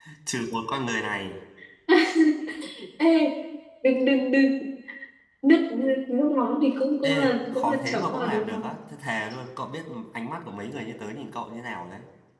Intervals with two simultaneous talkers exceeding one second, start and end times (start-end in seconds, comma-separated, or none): 7.0-8.7